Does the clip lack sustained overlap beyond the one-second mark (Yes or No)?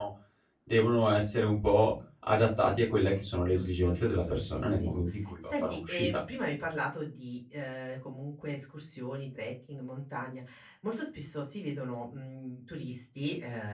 No